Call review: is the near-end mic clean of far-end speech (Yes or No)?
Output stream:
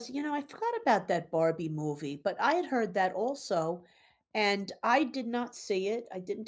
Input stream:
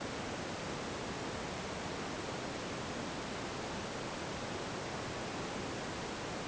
Yes